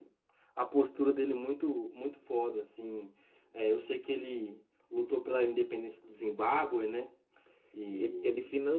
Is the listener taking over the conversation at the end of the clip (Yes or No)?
Yes